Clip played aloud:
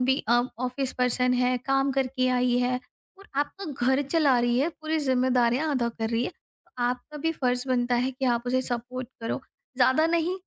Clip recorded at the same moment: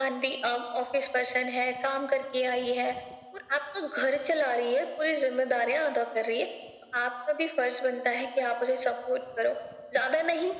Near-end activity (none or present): none